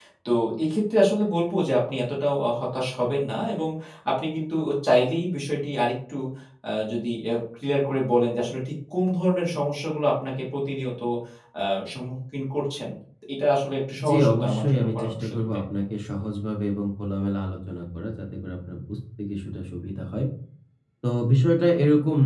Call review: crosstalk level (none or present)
present